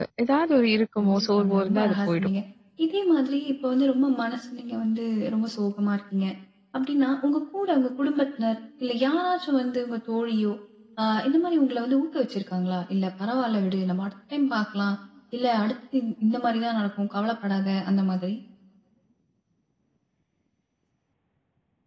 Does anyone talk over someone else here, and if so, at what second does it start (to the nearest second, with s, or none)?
1 s